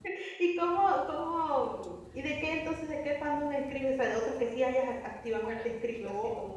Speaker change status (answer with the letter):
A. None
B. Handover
B